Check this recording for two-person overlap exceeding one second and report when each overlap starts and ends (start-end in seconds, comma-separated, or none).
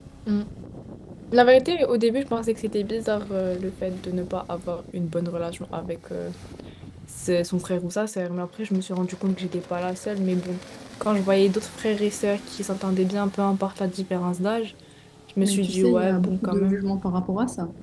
15.4-16.8